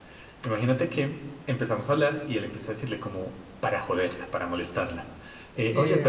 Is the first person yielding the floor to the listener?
Yes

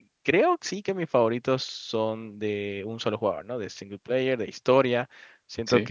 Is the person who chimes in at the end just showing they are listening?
Yes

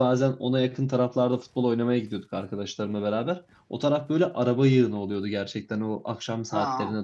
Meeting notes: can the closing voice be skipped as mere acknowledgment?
Yes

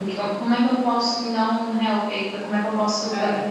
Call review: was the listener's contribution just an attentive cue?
No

